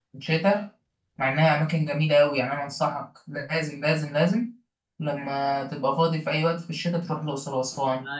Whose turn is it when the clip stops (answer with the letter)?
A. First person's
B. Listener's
B